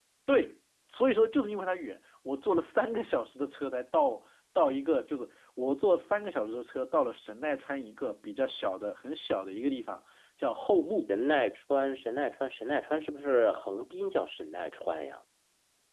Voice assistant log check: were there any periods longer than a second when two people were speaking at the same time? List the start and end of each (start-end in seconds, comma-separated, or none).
none